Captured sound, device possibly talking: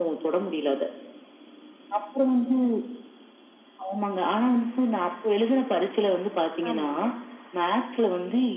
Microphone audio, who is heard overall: both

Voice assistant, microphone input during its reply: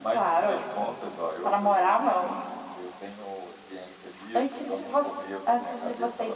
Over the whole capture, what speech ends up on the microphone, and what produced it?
echo only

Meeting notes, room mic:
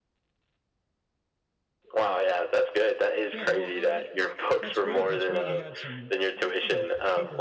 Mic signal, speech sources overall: both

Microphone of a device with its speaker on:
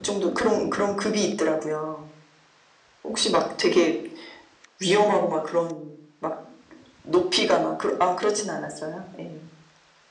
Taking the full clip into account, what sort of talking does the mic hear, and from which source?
echo only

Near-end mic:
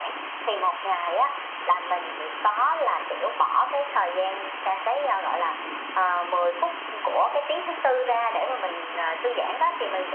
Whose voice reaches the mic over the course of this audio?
echo only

